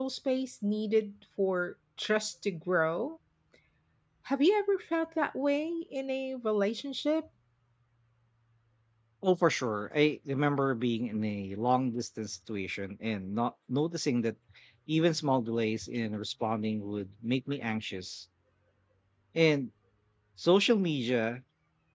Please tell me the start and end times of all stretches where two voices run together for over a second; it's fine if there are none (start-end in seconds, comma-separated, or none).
none